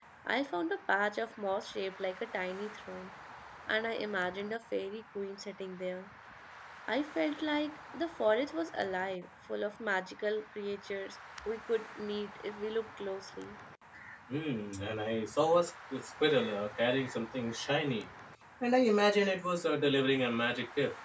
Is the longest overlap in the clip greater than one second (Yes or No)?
No